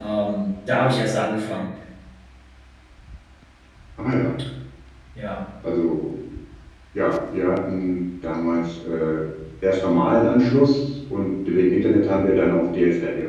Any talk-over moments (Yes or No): No